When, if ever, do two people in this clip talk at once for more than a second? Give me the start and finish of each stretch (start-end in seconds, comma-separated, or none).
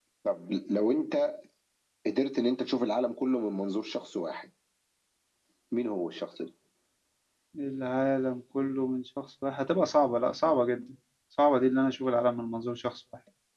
none